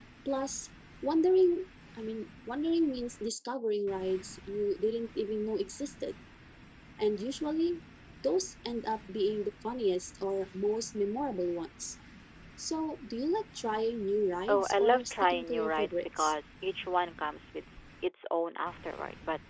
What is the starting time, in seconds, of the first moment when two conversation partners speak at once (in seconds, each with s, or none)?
14.5 s